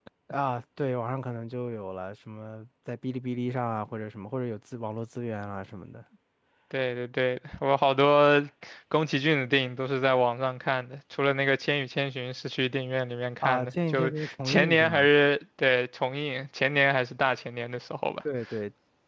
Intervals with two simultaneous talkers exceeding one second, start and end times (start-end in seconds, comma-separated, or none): 13.4-15.1